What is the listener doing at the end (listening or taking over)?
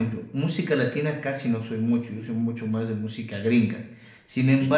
listening